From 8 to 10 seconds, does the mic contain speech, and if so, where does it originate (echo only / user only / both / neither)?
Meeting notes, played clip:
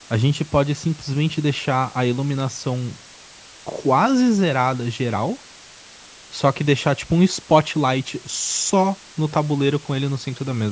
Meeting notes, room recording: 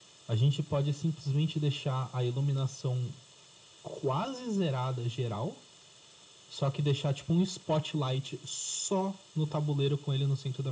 echo only